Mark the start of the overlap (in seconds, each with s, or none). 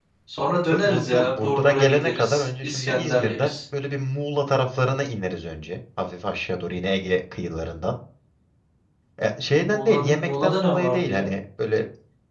0.7 s